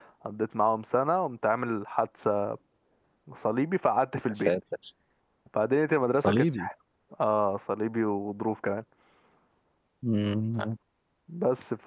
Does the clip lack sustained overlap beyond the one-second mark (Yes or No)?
Yes